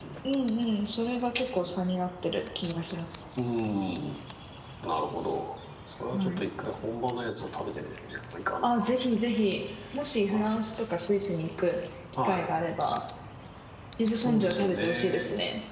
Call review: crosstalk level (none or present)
present